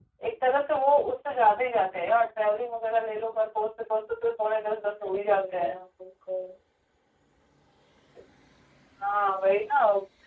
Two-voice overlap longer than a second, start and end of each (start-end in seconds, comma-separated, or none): 3.9-5.7